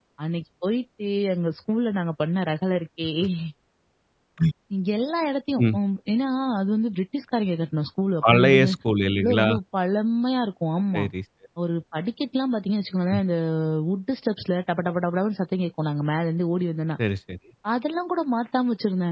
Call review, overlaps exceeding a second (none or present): none